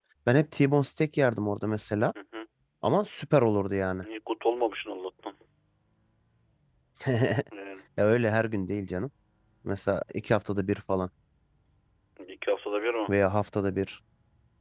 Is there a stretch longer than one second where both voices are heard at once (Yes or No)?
No